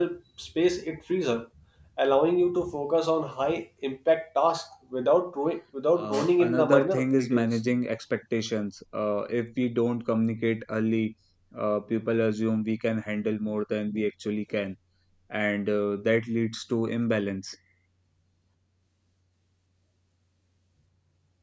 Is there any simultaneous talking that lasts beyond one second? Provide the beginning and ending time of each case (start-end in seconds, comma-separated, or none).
5.9-7.6